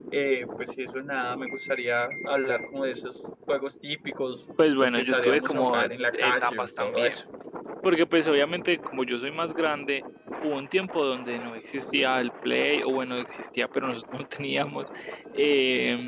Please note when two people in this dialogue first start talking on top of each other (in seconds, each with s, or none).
4.6 s